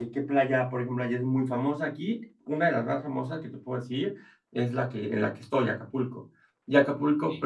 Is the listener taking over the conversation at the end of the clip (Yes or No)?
No